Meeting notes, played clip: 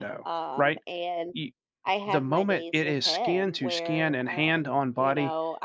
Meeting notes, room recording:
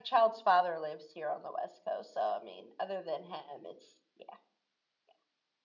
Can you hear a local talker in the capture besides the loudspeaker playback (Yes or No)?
Yes